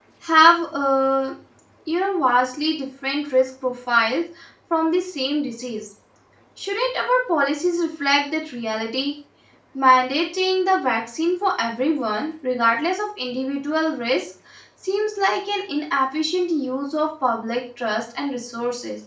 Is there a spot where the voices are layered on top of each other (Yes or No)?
No